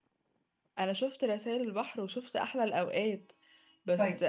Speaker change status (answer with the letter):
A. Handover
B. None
B